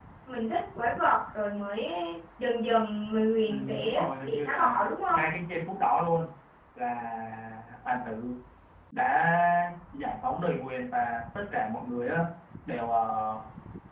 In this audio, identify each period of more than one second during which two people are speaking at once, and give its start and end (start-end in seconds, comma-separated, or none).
3.5-5.2